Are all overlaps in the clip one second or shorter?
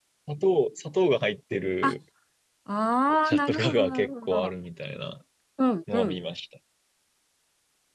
No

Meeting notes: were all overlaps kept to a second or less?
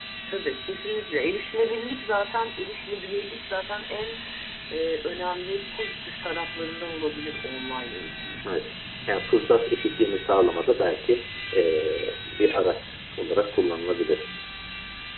Yes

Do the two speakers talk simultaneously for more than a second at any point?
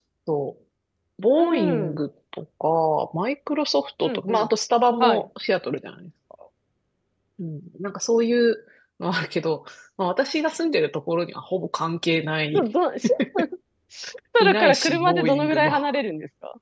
Yes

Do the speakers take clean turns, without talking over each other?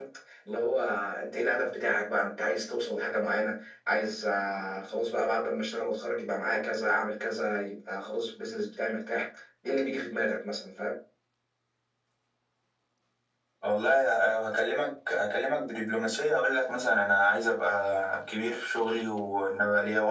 Yes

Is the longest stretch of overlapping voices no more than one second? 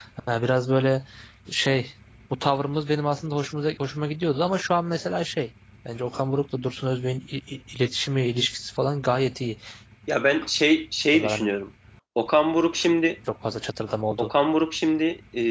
Yes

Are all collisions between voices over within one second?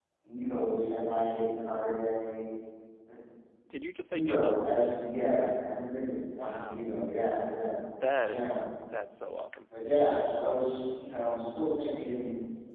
Yes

